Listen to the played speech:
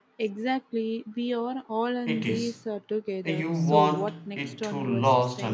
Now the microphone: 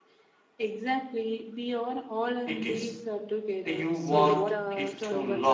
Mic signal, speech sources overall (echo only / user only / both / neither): both